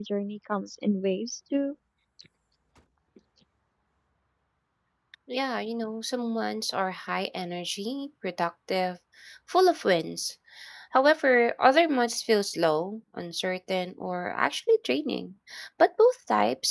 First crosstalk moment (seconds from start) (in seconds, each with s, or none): none